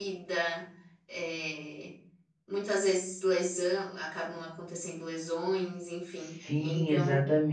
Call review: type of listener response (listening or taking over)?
taking over